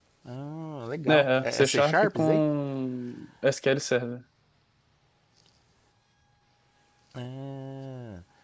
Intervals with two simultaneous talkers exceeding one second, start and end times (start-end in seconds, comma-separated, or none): 1.1-2.4